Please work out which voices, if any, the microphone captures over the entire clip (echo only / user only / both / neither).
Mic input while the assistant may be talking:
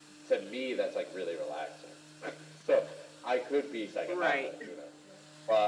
both